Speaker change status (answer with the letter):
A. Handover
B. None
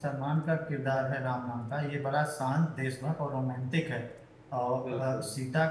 B